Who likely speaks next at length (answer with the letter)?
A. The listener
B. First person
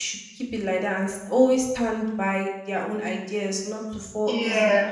B